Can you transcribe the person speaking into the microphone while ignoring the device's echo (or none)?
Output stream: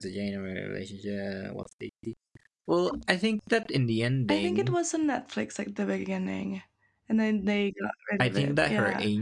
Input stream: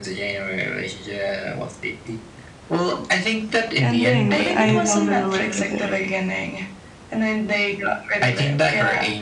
ending, but I don't remember either.